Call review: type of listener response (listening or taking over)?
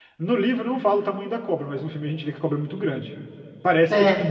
listening